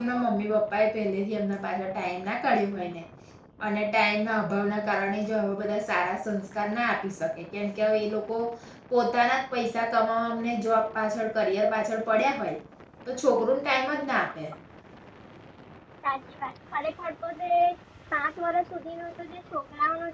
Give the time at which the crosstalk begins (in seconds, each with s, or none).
none